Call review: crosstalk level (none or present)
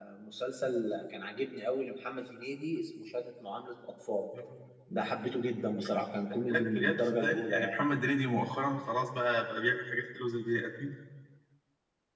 present